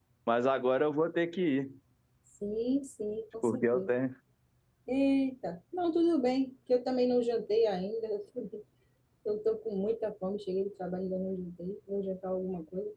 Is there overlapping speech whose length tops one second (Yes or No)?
No